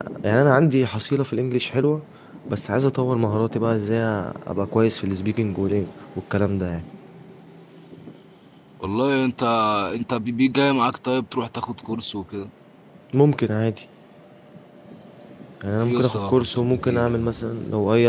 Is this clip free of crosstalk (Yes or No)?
No